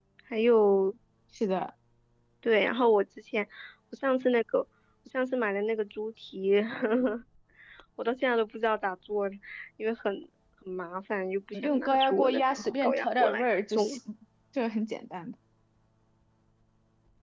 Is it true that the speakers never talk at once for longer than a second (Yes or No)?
No